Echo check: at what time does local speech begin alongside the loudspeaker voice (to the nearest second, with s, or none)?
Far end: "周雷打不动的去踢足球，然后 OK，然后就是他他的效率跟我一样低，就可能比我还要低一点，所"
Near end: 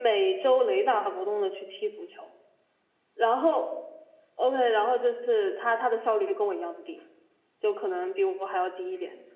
none